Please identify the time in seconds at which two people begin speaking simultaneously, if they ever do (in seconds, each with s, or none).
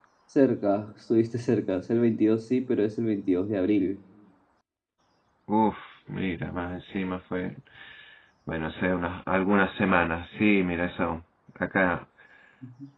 none